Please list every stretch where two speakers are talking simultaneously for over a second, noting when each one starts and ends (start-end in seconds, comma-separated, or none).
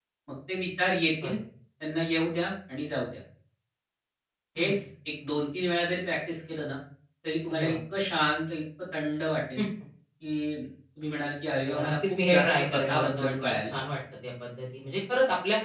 11.7-13.8